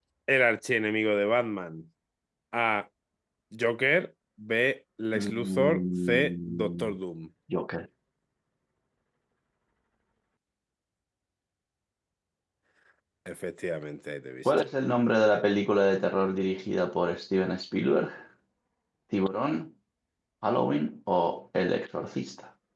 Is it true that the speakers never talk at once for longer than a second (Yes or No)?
No